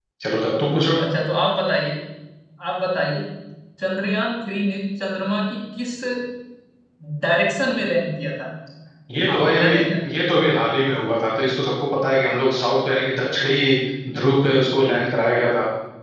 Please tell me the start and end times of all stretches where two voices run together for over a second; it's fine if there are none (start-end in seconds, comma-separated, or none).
none